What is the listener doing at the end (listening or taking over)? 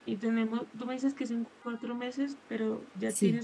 listening